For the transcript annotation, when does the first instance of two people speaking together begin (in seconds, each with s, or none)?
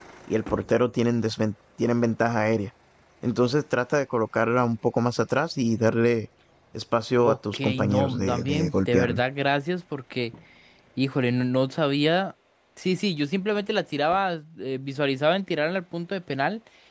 7.2 s